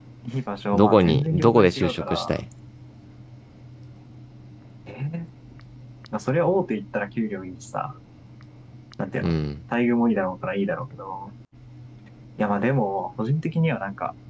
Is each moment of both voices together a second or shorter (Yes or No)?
No